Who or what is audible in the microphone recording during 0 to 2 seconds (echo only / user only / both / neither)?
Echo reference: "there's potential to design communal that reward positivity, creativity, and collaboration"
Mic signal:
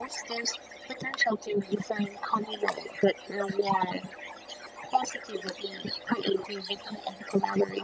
echo only